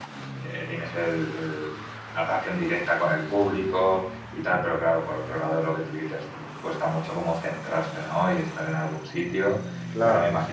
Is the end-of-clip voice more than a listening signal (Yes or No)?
No